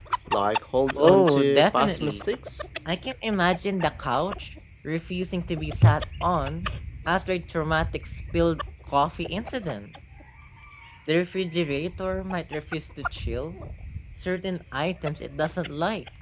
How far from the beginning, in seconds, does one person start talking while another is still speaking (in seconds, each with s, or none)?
1.0 s